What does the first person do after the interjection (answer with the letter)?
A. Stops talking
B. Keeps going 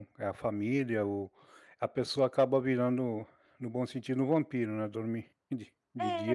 A